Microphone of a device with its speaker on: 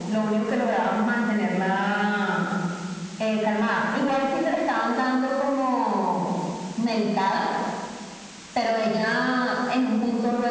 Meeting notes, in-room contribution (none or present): none